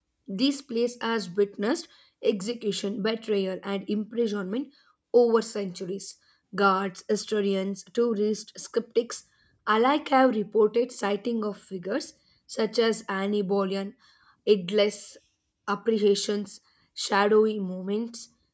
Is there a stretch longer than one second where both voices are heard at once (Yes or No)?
No